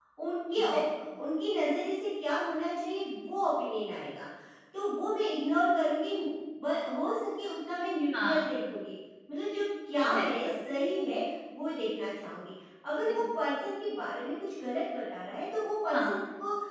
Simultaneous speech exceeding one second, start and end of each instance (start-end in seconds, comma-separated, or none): none